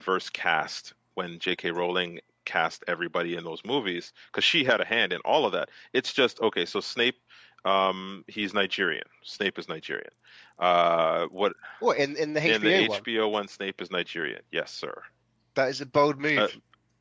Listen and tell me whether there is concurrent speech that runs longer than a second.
No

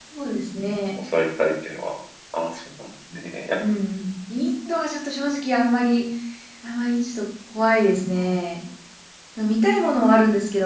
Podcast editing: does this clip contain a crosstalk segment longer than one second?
No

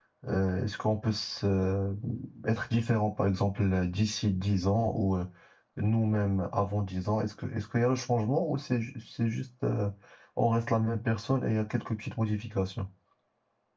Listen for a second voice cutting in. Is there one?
No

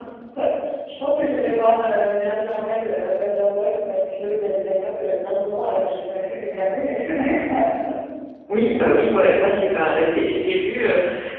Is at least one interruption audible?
No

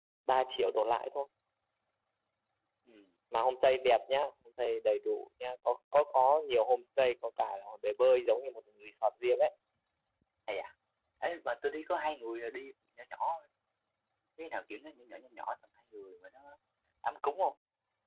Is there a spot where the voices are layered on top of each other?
No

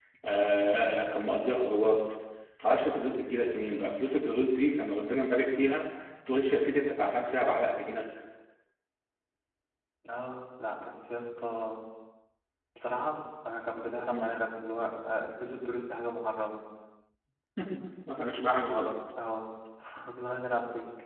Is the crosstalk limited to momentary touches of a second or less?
Yes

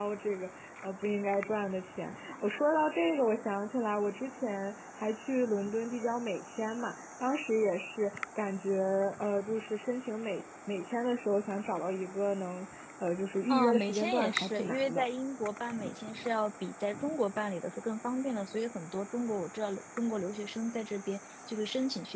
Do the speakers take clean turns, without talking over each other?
No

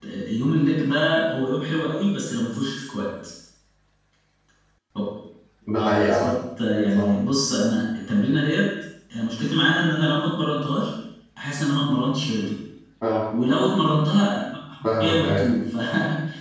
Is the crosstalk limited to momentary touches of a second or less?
Yes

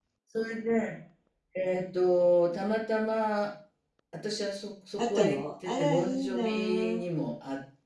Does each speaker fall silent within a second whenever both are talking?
No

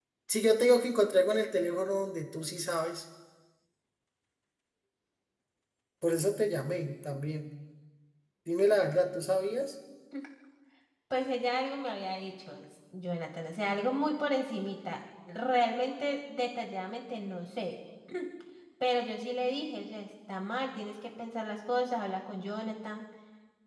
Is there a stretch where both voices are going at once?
No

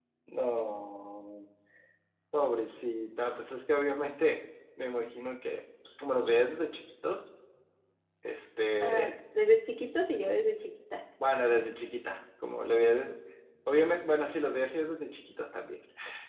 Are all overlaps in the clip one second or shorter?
Yes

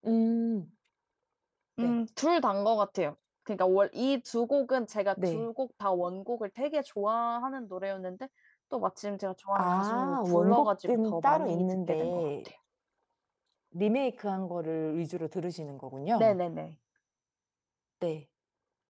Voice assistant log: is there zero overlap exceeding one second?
No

